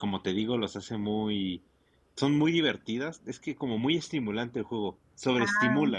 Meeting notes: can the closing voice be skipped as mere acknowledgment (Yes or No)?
No